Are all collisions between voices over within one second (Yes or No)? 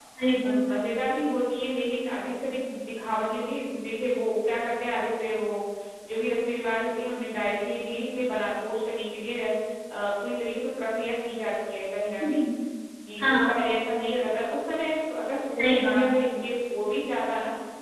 Yes